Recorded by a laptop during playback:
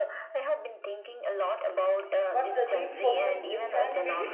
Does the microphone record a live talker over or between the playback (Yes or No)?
Yes